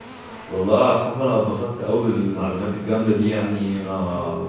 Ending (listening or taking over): listening